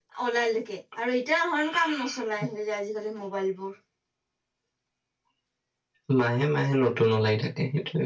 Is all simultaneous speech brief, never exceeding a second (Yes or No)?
Yes